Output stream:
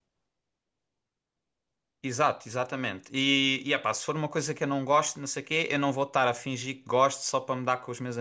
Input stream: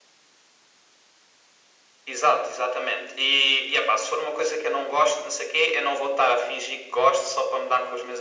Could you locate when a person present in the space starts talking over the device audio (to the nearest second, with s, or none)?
none